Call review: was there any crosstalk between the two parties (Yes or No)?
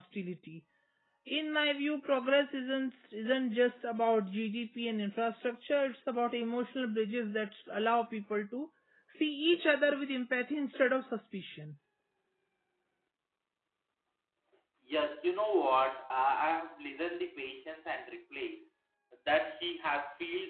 No